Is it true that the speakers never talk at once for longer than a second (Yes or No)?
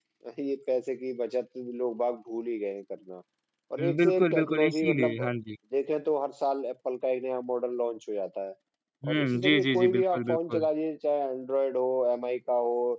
No